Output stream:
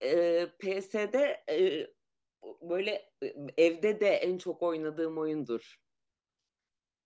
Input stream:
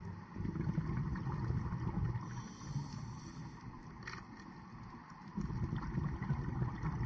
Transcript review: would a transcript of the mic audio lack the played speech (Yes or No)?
Yes